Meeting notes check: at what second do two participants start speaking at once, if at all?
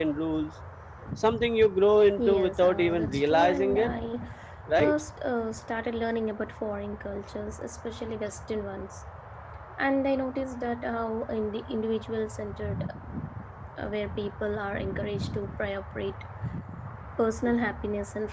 2.2 s

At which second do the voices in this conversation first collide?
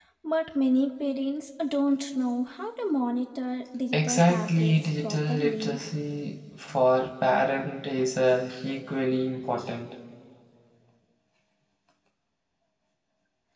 3.9 s

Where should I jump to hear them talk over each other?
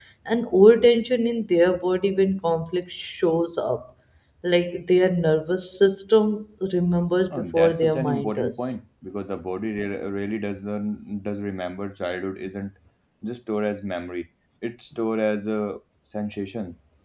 7.3 s

